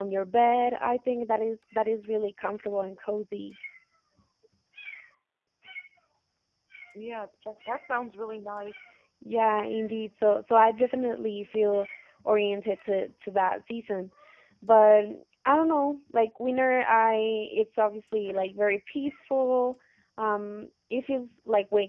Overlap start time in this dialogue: none

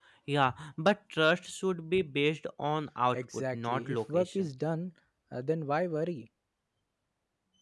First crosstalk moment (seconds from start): 3.1 s

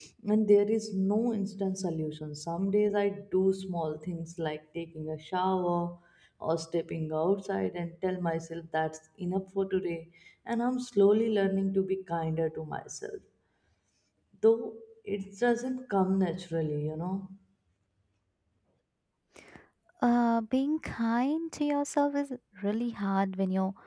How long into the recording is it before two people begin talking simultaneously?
none

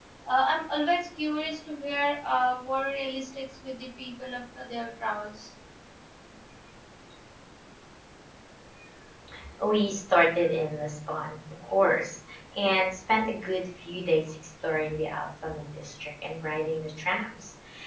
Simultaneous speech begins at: none

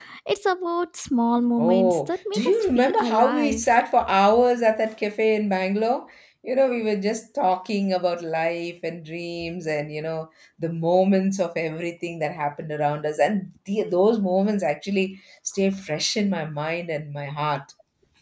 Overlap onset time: 1.4 s

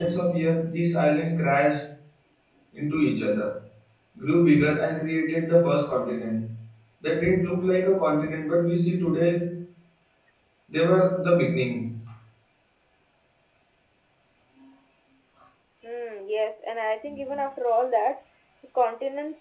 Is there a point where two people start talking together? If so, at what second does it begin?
none

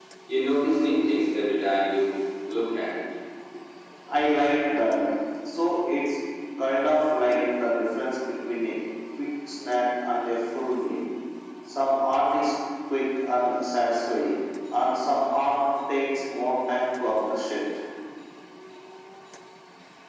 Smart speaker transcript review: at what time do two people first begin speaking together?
none

